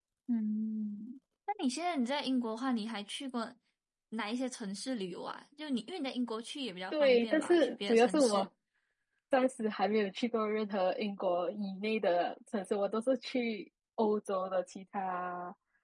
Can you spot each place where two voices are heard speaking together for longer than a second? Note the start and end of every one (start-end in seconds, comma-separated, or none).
6.9-8.5